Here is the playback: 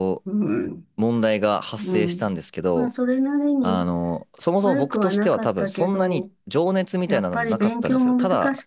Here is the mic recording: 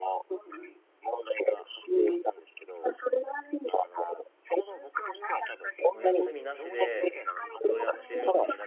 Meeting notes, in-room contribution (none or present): present